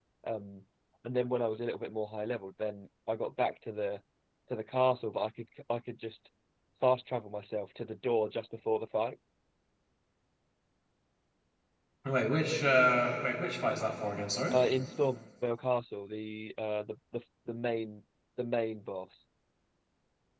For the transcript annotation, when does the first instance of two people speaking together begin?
none

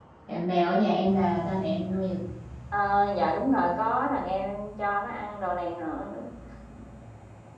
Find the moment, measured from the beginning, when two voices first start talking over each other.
none

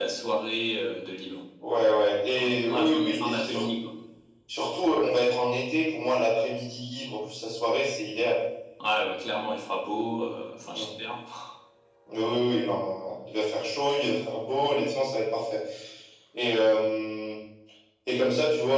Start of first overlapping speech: 2 s

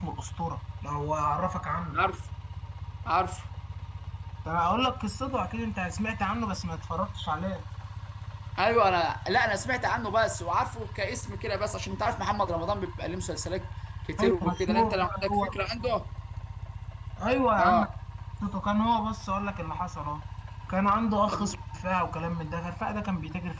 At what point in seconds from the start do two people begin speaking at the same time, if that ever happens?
14 s

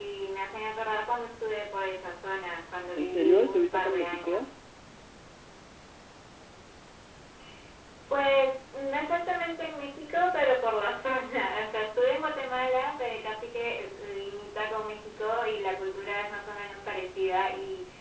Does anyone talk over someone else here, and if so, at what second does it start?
3 s

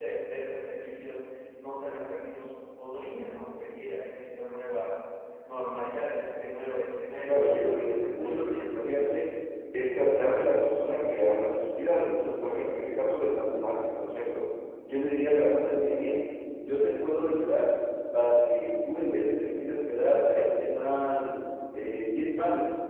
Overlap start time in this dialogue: 7 s

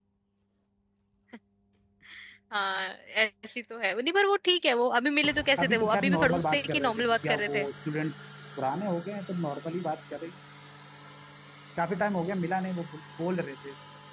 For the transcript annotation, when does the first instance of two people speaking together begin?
6 s

